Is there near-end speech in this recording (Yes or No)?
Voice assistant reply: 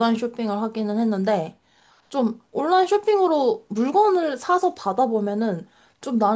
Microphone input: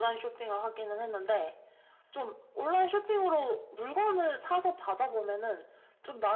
No